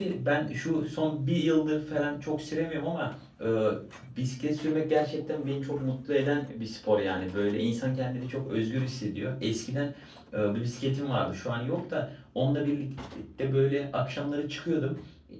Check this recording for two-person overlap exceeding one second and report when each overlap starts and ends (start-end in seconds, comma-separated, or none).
none